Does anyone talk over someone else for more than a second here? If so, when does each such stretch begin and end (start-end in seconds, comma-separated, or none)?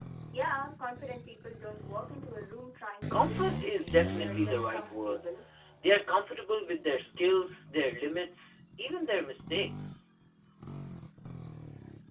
3.1-5.3